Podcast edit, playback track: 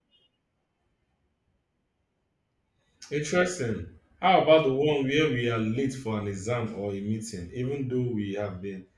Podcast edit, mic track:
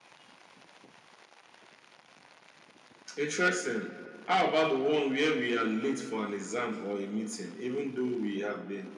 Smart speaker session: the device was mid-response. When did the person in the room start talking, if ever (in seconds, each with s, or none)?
none